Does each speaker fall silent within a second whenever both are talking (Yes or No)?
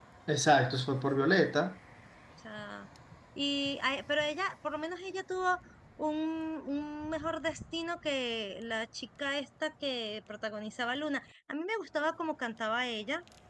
Yes